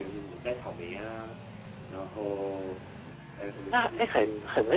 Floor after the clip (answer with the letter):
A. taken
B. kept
A